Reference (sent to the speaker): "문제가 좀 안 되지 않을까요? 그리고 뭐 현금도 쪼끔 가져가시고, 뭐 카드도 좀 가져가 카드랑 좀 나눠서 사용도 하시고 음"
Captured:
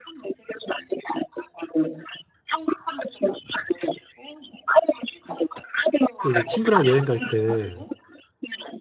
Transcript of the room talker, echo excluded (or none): 또 이제 친구랑 여행 갈 때